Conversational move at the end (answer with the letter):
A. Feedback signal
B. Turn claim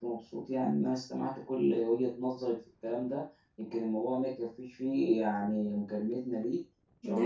B